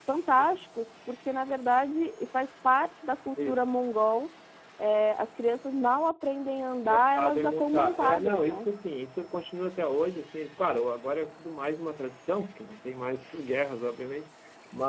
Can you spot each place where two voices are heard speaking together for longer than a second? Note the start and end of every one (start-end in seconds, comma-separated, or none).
6.9-8.7